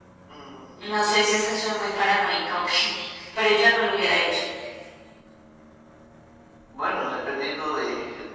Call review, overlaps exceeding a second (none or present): none